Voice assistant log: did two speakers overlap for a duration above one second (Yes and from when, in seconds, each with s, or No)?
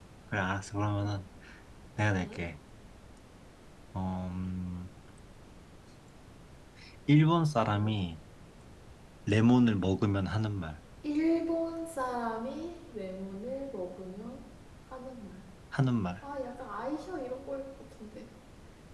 No